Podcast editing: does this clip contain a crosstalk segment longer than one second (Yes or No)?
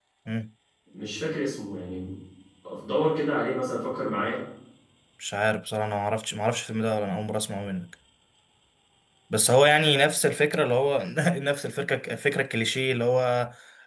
No